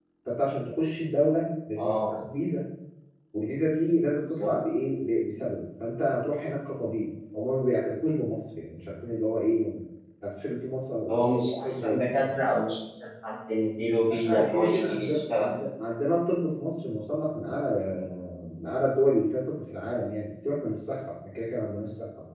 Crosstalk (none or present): present